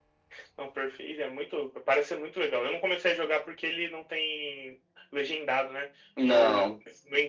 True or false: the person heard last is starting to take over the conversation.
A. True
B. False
B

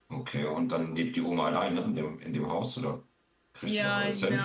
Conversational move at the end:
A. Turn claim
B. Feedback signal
A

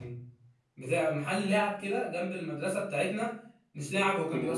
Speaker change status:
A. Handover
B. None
B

